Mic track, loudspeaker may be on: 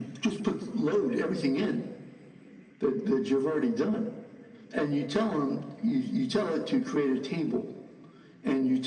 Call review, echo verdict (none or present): present